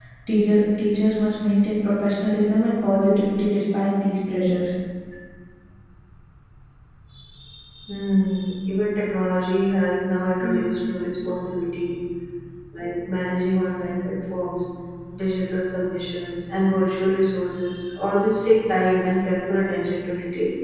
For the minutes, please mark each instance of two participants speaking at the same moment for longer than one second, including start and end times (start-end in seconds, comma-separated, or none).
none